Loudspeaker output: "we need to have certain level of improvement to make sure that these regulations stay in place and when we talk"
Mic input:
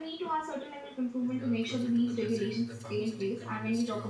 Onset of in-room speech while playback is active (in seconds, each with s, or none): 1.2 s